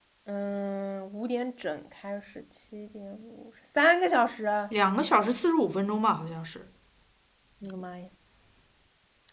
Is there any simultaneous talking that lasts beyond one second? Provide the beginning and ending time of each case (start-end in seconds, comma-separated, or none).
none